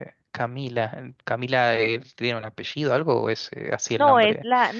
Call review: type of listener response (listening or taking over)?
taking over